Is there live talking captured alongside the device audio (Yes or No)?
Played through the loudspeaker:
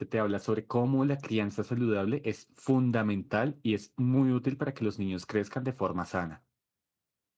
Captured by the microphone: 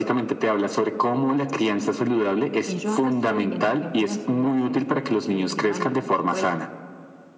Yes